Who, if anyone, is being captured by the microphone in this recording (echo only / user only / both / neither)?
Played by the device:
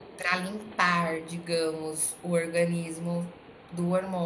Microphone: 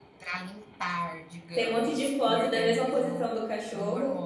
both